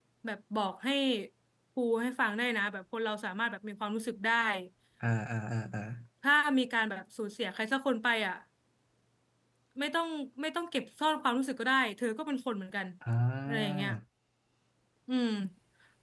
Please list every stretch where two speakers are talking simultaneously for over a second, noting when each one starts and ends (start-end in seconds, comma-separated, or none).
none